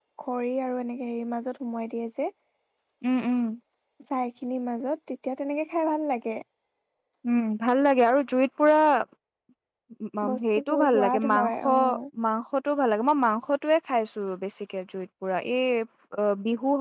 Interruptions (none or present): present